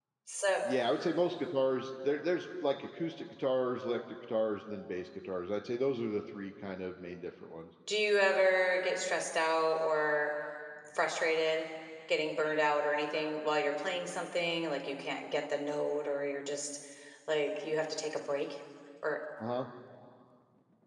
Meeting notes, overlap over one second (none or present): none